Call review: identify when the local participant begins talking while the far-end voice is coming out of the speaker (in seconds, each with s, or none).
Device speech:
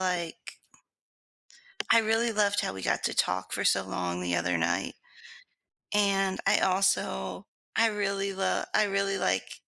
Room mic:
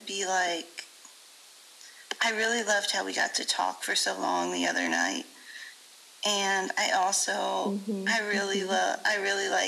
7.7 s